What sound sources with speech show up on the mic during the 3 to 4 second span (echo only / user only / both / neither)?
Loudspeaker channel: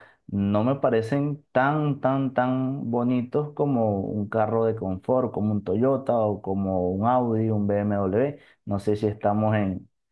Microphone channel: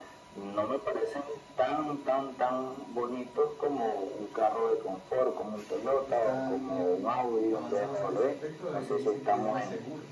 echo only